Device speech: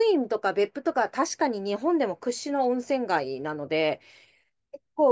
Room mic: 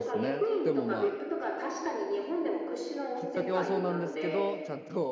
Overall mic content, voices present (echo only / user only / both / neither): both